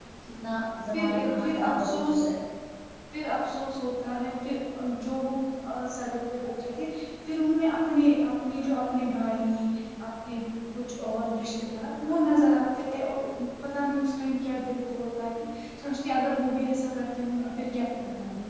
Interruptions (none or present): present